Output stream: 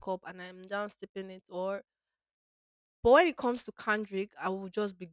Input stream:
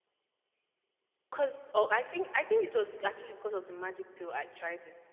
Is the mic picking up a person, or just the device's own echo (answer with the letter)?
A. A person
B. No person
A